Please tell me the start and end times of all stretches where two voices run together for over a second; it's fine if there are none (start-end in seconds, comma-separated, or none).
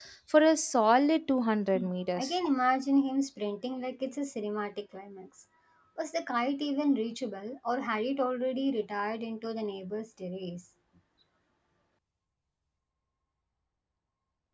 none